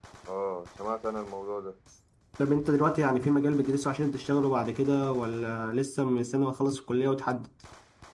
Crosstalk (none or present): none